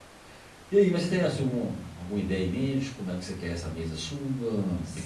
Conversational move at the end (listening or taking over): listening